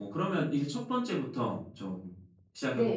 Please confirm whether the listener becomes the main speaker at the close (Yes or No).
Yes